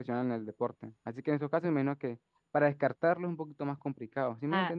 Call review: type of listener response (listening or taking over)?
taking over